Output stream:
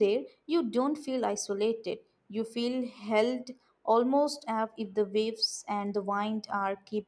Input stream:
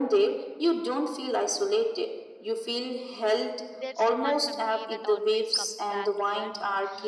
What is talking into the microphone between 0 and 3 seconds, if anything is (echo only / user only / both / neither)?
echo only